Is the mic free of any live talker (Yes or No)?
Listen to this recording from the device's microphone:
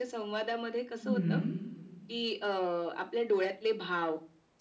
No